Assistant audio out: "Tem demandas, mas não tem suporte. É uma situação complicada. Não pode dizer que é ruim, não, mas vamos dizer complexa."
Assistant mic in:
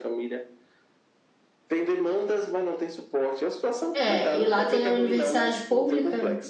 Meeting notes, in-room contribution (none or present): present